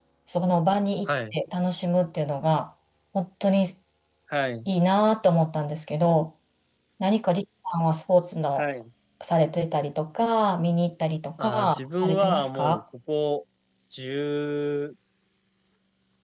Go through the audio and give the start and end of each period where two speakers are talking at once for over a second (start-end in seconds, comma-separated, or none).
11.4-12.8